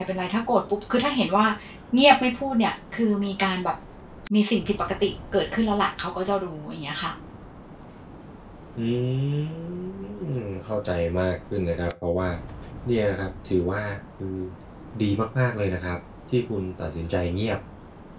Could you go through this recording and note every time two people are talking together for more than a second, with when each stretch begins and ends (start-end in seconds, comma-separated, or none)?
none